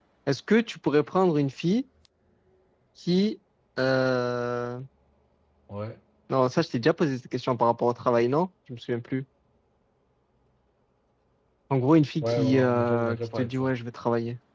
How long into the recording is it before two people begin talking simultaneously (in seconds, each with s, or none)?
12.2 s